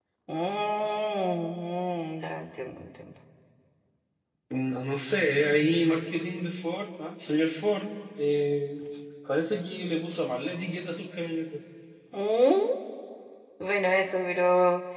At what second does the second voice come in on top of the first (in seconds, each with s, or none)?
none